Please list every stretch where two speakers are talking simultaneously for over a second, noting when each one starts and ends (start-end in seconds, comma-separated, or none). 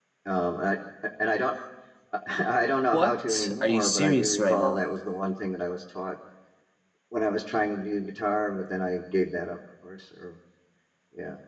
2.9-4.8